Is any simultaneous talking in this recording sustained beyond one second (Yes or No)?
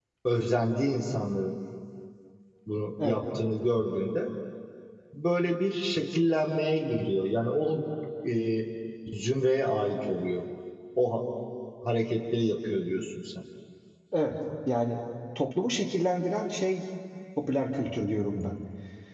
No